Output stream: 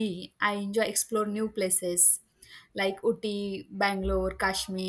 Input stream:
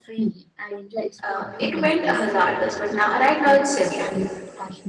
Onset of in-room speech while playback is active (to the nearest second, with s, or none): 1 s